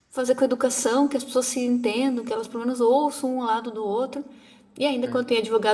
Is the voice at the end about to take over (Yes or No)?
No